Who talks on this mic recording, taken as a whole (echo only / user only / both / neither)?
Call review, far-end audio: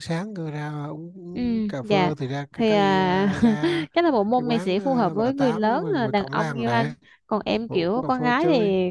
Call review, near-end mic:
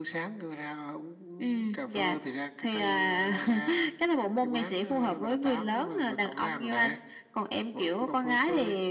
echo only